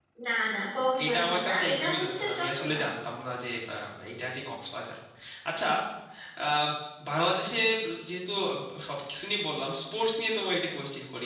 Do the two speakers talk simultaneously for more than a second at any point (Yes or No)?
Yes